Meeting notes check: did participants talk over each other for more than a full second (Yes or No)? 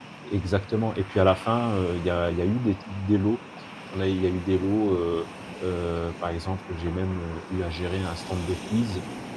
No